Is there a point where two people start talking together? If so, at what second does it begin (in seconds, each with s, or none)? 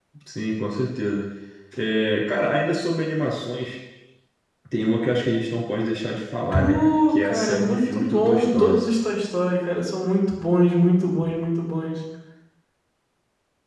6.5 s